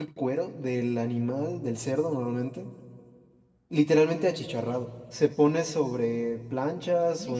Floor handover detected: No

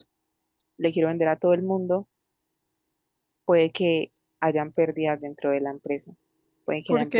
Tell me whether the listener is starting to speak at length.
No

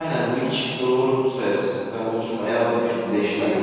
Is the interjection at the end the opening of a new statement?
Yes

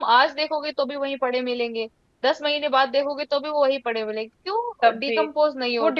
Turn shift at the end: Yes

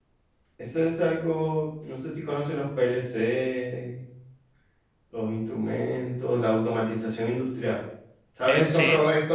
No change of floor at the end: Yes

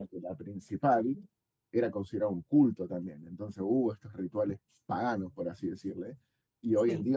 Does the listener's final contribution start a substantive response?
No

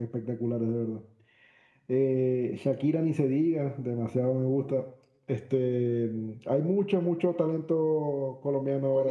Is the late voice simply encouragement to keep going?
No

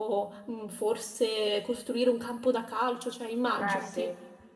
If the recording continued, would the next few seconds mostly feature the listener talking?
Yes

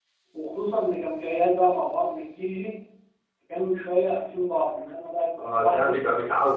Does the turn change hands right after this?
Yes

